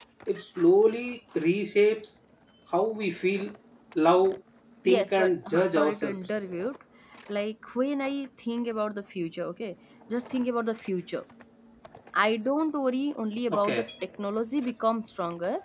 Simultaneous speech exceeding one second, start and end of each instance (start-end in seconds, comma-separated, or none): 4.8-6.2